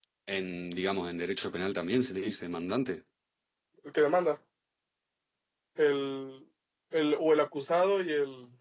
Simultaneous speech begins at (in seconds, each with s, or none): none